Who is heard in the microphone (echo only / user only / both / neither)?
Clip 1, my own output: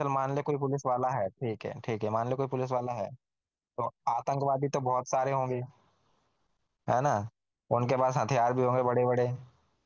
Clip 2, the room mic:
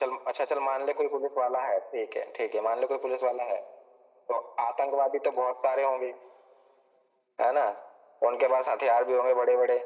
echo only